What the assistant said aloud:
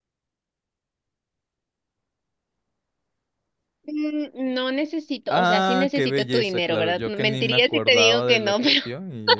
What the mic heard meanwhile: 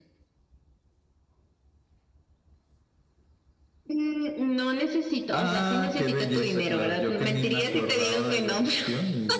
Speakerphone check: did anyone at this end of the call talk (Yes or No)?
No